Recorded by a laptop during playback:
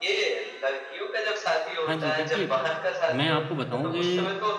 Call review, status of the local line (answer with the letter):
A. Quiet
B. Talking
B